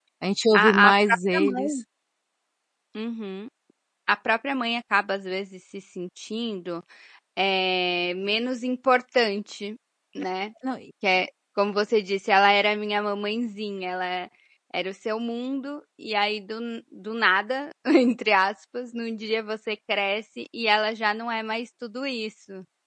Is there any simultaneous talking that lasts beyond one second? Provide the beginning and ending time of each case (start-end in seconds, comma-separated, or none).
0.5-1.8